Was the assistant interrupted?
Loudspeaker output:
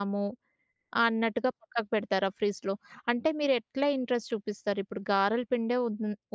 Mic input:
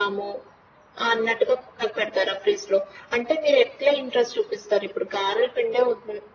No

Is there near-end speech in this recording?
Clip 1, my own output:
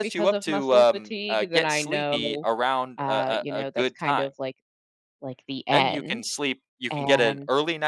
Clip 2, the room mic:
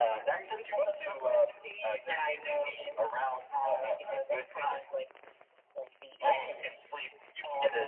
No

